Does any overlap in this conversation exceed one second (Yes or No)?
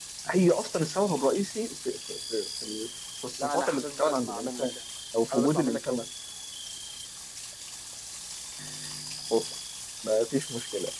Yes